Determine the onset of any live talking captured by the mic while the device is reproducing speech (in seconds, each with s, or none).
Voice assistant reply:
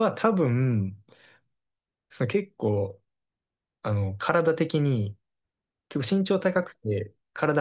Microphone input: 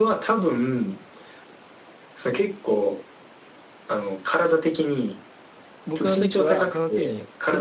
5.9 s